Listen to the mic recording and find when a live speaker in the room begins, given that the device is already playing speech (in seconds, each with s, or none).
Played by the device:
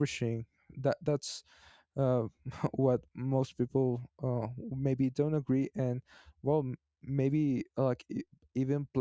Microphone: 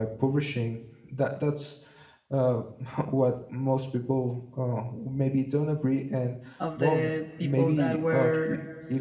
6.6 s